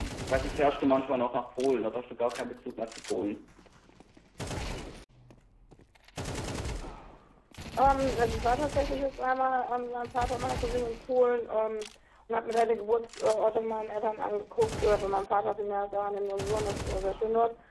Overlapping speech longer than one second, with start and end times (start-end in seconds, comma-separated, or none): none